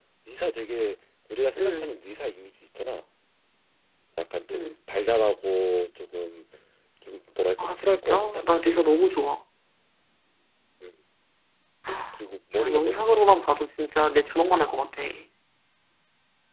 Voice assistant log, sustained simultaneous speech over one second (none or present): present